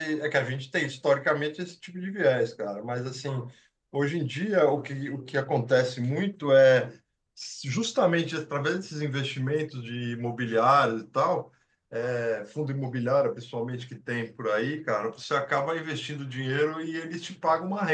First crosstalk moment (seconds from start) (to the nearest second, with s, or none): none